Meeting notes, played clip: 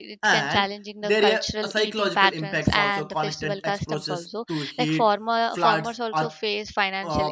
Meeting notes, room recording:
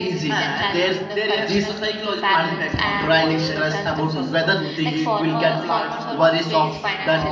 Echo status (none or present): present